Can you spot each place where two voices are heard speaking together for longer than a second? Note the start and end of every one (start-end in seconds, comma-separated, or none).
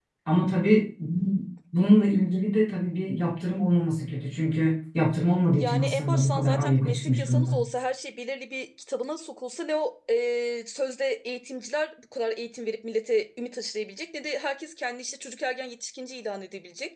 5.6-7.6